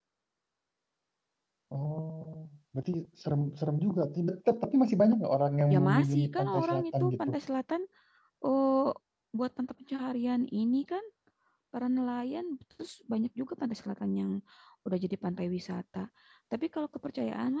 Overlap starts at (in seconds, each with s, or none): 5.7 s